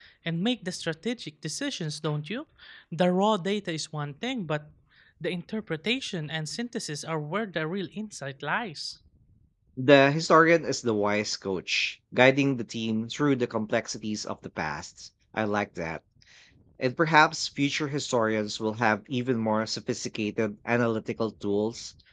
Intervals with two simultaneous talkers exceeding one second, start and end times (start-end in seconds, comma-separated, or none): none